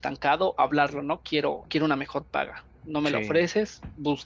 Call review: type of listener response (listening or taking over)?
listening